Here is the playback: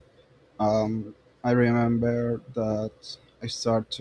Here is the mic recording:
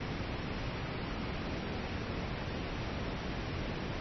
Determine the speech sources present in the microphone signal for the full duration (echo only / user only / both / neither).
neither